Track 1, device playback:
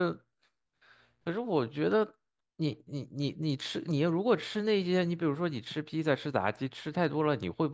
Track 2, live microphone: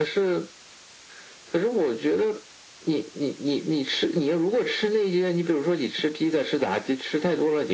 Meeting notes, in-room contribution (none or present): none